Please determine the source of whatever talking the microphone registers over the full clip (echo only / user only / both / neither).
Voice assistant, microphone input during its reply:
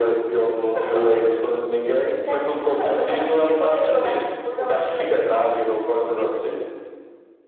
both